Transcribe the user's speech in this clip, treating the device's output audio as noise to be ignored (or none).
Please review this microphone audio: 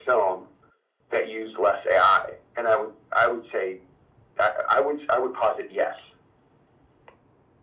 none